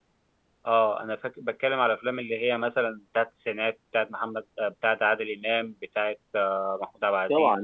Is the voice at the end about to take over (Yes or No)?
Yes